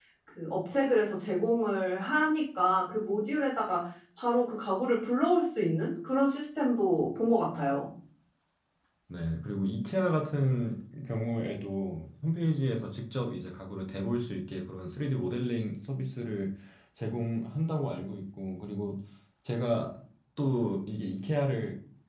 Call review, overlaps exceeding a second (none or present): none